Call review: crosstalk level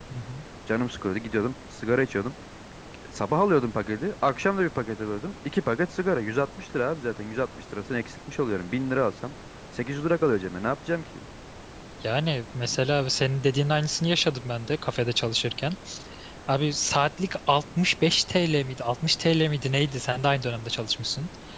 none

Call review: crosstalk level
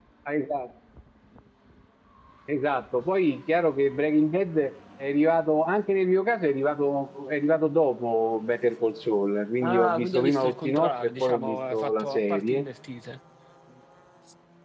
present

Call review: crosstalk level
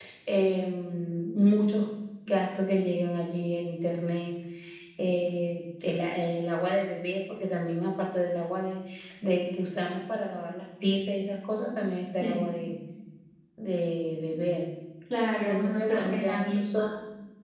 present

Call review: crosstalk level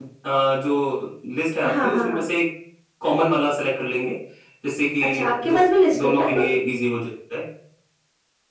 present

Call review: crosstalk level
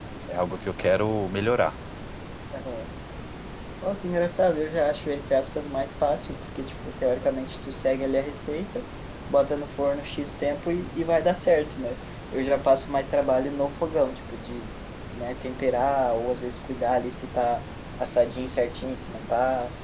none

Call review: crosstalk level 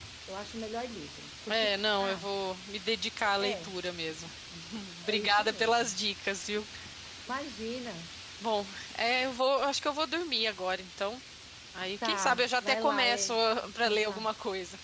present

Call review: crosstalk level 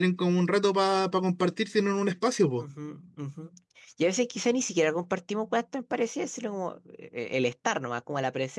none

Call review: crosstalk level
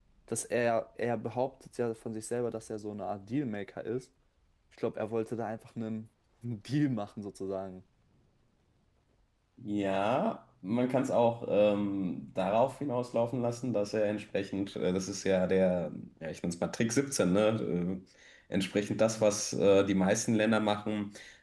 none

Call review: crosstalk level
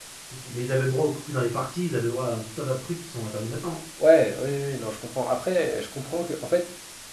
none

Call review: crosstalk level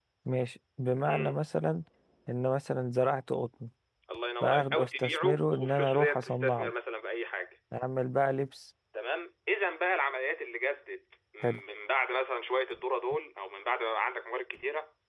present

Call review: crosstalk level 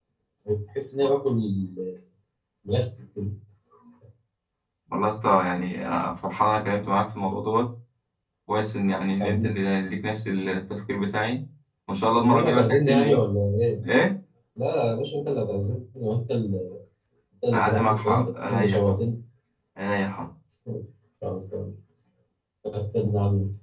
present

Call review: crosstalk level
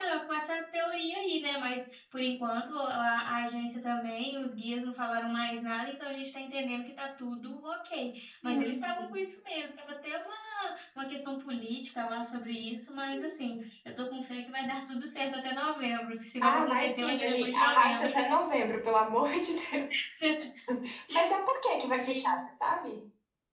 present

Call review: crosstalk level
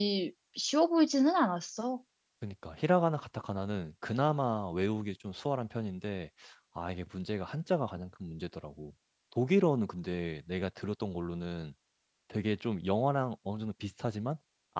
none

